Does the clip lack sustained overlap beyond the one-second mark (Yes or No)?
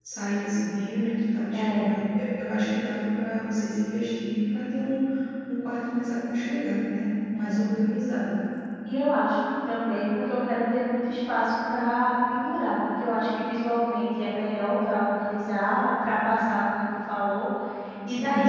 Yes